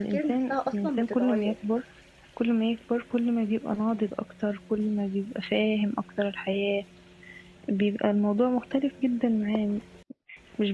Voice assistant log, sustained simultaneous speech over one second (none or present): present